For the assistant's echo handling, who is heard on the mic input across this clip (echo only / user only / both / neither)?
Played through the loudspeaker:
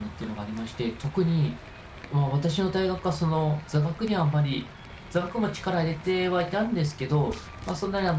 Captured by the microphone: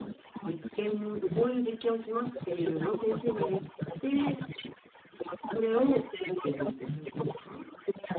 both